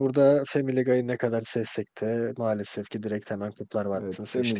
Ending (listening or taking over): taking over